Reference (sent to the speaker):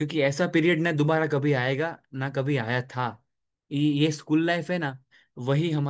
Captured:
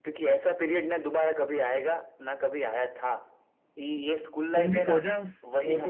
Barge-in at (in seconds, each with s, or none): 4.5 s